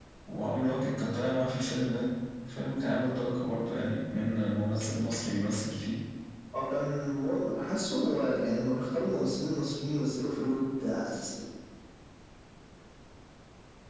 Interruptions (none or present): none